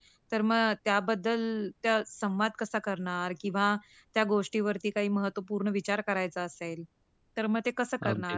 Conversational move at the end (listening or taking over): listening